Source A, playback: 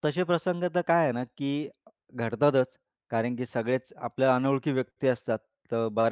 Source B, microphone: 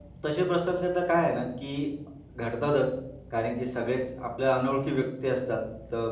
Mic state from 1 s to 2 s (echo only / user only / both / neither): echo only